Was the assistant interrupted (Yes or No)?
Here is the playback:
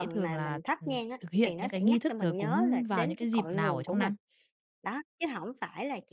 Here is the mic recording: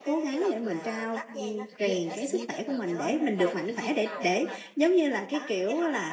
Yes